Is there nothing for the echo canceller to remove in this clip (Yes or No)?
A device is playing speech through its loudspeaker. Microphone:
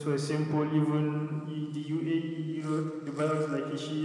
No